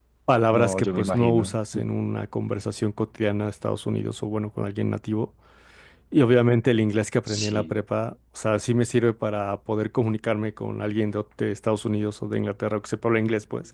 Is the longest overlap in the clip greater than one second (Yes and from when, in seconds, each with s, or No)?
Yes, from 0.5 s